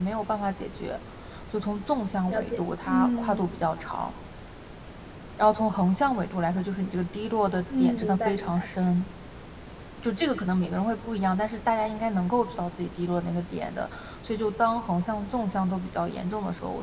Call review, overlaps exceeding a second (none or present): present